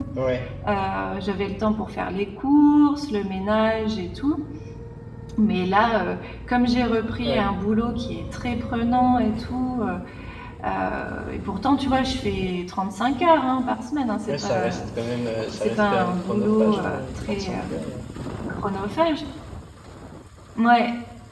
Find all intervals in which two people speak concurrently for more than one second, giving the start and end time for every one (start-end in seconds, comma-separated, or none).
15.5-17.8